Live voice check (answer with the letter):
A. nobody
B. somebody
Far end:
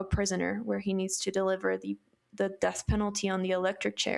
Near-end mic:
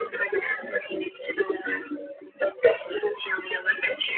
A